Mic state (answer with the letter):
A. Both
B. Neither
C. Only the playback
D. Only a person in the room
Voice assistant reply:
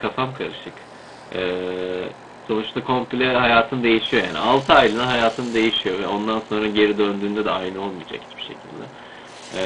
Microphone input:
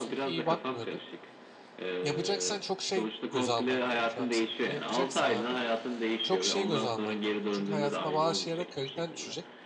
A